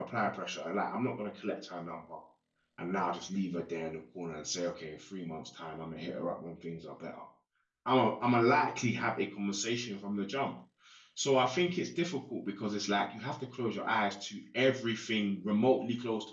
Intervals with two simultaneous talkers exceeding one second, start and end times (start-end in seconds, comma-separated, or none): none